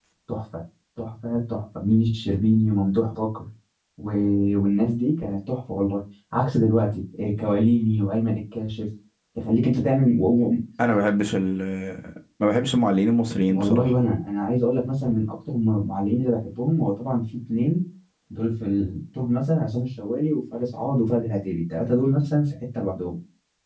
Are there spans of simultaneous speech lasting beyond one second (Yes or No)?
No